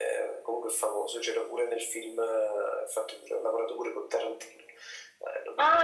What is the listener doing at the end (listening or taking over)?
taking over